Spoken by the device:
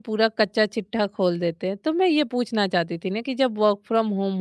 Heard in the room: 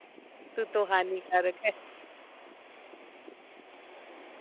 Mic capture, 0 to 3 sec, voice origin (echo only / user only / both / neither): user only